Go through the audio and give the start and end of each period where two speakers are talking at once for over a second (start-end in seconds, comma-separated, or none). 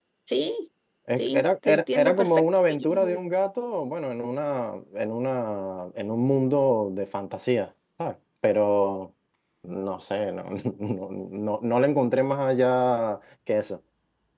1.2-3.2